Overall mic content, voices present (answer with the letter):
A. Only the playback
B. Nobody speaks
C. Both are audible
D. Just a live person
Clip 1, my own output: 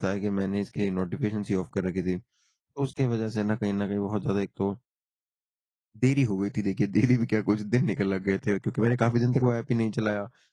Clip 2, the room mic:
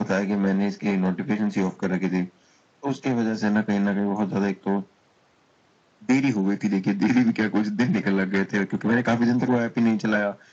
A